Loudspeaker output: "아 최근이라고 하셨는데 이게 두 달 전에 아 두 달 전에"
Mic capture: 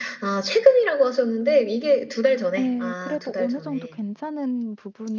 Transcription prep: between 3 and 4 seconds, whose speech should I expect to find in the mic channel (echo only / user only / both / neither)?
both